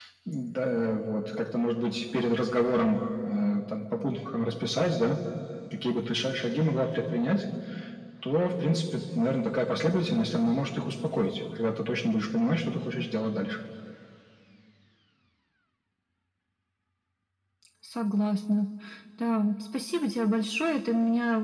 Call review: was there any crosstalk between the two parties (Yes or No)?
No